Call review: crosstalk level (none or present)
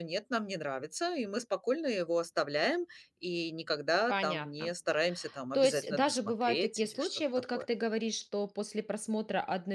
present